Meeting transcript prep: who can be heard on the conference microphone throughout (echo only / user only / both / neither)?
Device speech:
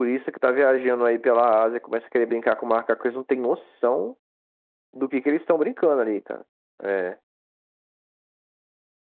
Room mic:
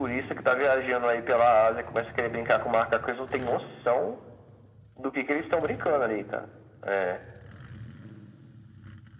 echo only